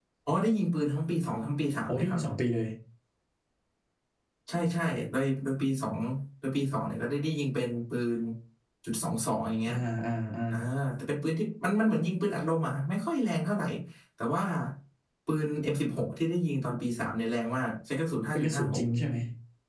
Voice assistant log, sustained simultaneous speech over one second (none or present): none